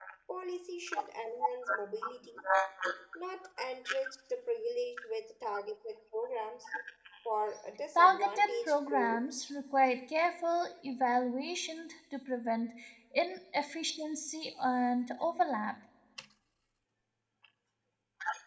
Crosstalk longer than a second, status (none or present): present